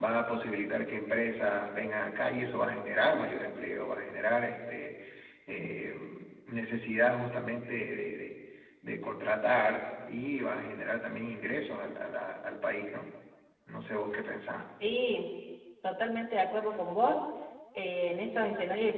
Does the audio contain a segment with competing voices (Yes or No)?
No